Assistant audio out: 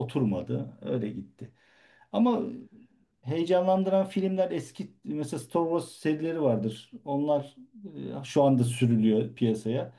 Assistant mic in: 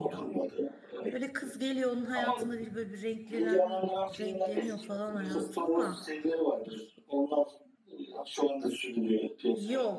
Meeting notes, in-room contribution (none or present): present